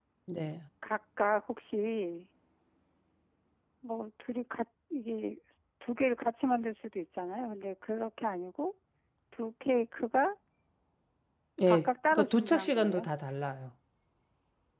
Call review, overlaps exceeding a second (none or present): present